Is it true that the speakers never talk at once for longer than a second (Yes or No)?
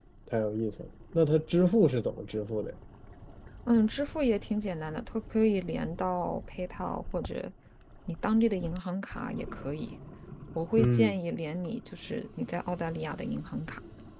Yes